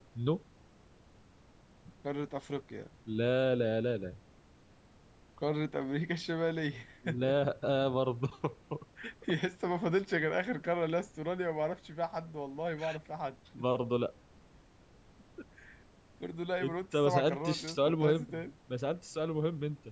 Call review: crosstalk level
present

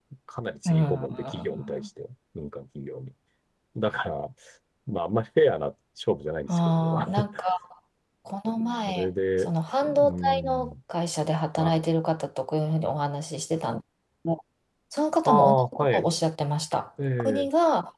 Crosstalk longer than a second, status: present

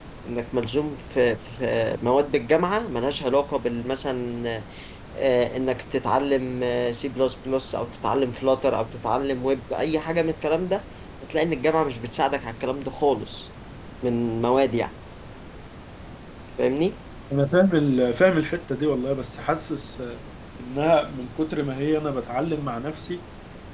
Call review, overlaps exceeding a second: none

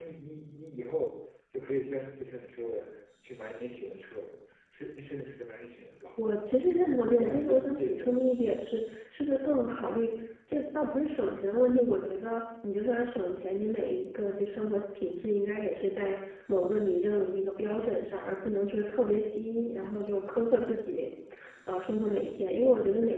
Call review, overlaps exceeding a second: present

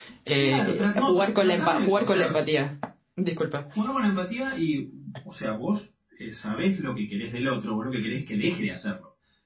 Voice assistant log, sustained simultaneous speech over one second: present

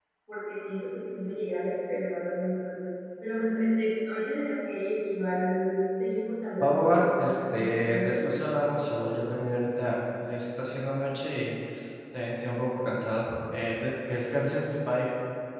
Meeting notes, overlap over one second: present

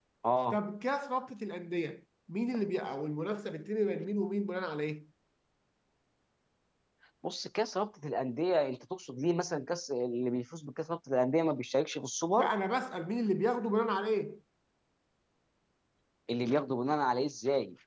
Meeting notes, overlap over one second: none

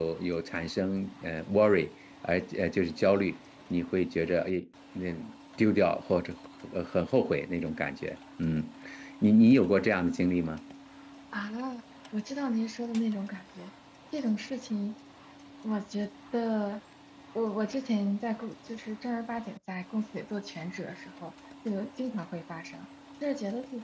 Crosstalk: none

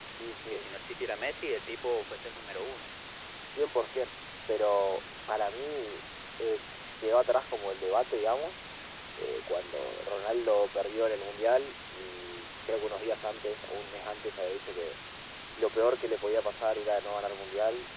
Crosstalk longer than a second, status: none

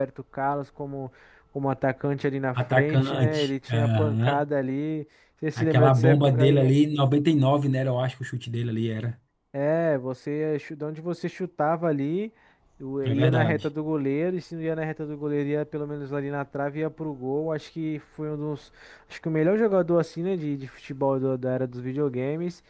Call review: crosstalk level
present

